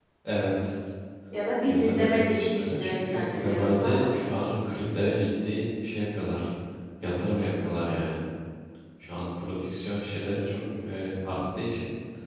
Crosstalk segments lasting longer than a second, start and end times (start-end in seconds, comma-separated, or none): 1.6-4.0